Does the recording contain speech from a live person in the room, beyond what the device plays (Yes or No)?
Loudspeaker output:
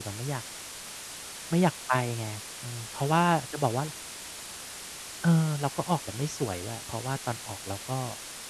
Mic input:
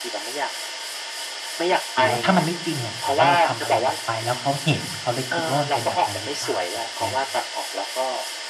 Yes